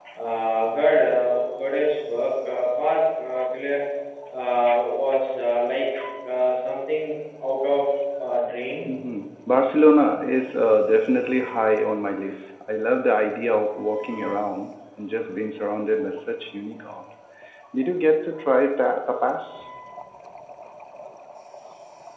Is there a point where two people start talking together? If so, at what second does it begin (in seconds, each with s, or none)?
none